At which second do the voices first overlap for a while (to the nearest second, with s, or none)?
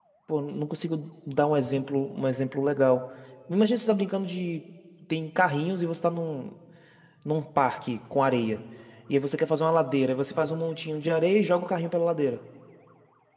none